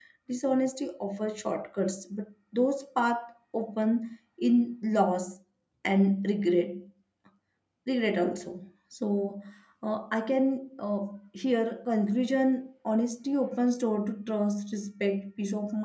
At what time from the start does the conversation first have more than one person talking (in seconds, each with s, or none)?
none